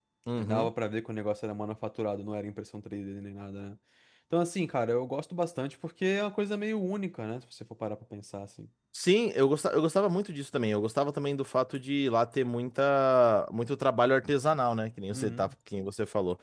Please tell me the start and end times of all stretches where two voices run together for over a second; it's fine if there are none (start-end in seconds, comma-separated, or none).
none